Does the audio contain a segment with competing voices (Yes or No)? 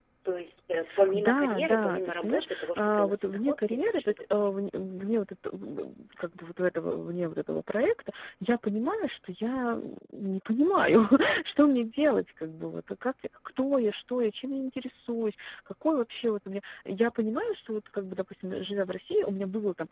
Yes